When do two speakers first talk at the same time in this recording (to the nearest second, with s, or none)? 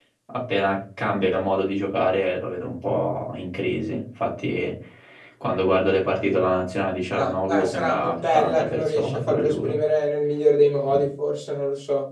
7 s